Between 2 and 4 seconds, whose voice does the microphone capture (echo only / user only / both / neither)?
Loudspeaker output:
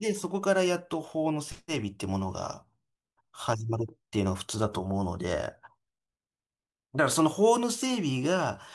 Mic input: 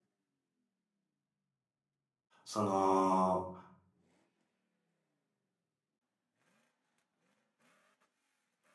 user only